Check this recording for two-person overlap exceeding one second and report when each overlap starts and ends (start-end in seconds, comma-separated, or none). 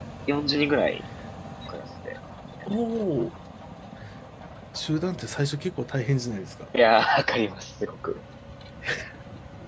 none